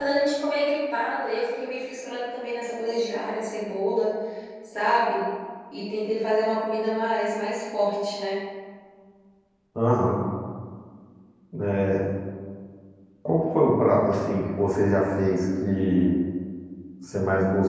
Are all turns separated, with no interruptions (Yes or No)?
Yes